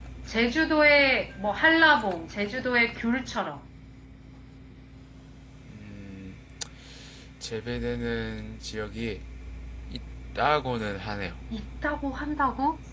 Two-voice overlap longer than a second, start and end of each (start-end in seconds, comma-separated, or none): none